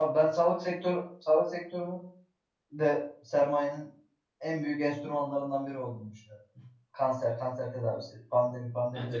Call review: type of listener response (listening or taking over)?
taking over